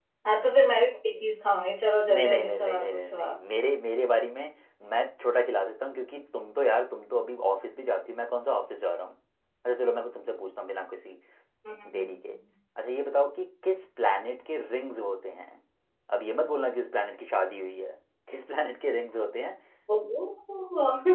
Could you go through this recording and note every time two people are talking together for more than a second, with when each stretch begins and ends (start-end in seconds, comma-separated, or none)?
2.1-3.4